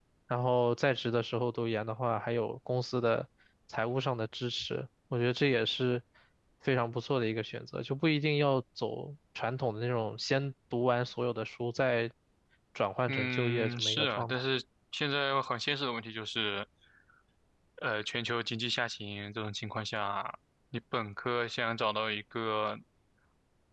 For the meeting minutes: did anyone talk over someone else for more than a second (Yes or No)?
Yes